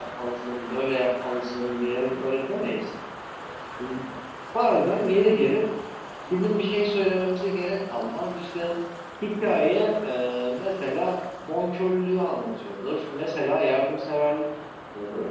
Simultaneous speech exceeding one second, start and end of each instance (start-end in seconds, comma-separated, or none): none